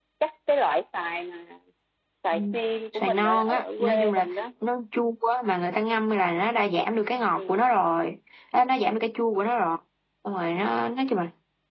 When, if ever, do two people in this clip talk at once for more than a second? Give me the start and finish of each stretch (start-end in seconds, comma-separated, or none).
2.9-4.3